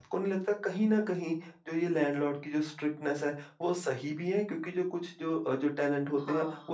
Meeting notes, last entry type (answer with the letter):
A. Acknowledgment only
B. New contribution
A